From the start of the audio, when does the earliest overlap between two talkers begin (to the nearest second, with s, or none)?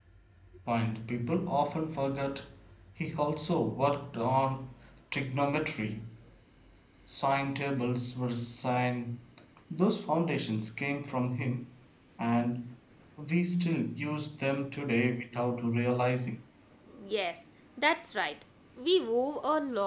none